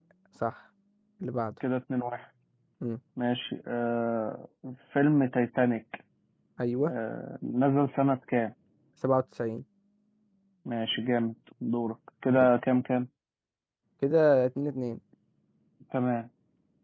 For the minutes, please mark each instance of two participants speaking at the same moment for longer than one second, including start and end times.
none

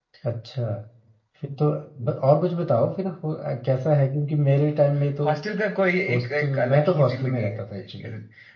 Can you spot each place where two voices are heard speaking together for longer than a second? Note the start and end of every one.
6.1-7.6

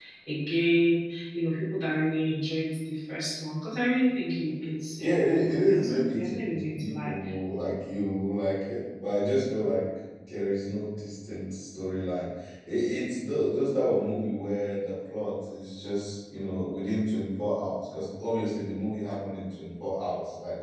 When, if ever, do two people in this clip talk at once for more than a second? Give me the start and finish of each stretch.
5.0-7.1

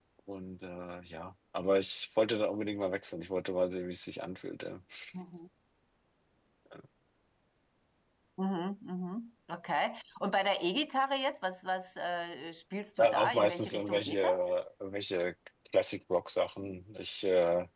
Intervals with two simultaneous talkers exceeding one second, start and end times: 13.0-14.2

